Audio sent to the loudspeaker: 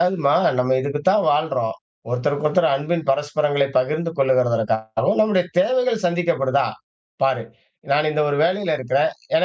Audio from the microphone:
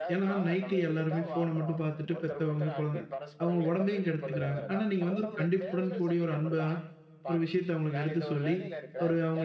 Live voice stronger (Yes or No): Yes